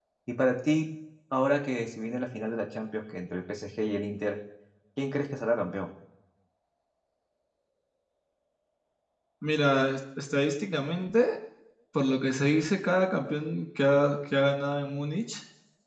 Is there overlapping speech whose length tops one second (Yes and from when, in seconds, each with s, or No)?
No